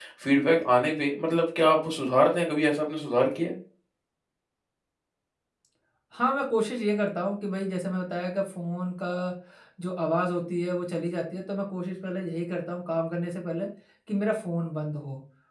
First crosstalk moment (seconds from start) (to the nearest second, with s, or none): none